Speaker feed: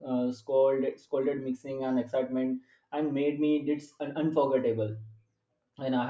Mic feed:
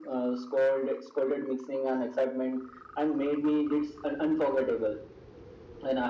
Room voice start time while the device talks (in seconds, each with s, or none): none